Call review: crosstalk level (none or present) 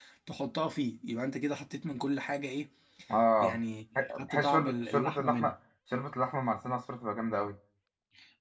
present